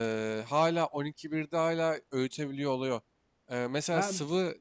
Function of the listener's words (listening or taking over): listening